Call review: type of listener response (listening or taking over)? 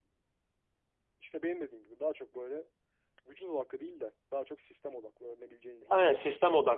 taking over